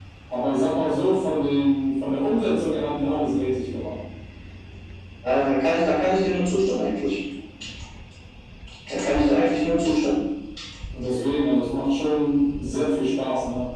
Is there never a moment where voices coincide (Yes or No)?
Yes